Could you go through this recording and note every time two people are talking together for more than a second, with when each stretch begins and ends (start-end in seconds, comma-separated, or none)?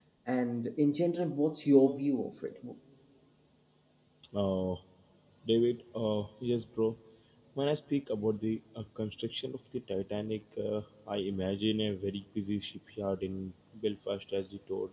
none